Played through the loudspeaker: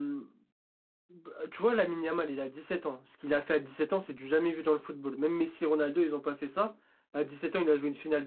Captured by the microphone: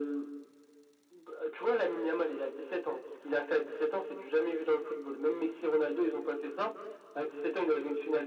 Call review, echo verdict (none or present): present